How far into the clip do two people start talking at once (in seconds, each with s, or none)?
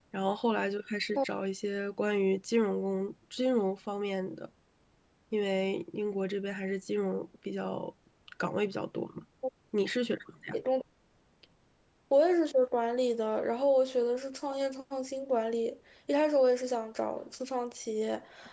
none